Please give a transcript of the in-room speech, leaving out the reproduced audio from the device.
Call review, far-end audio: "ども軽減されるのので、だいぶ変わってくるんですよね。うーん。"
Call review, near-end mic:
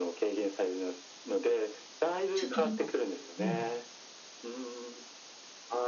ちょっと、なんか、こう、うん、

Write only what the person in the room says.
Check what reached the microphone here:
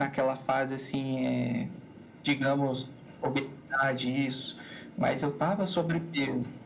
none

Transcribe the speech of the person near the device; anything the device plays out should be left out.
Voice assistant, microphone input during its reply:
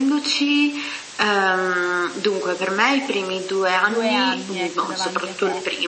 2 anni, ecco, davanti a te.

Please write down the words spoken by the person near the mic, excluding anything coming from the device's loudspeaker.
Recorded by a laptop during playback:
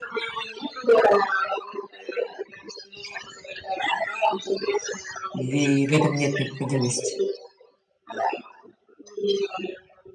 или в этом нет необходимости?

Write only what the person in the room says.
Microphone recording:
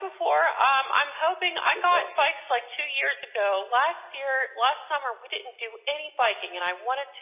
That's awesome.

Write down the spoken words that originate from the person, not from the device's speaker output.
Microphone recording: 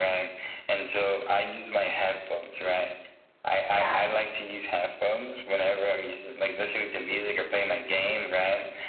Yeah.

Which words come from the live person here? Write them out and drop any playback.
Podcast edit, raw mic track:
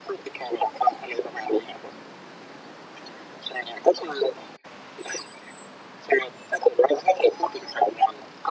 none

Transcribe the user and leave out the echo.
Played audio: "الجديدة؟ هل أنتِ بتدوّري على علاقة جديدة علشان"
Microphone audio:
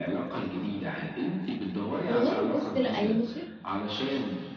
والله، بُصّ، لأ، هي مش

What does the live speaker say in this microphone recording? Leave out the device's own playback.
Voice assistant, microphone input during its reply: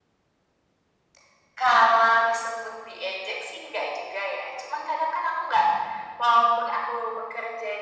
none

